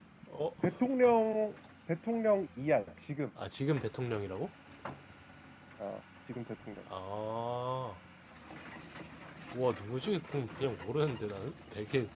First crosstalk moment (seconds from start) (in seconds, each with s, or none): none